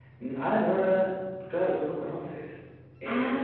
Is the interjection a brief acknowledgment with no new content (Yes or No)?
No